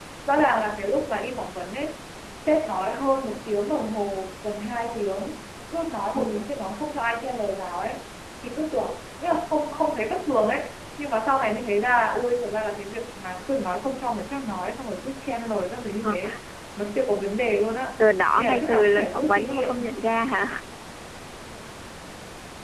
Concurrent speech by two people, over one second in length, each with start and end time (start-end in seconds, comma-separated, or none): 18.4-19.9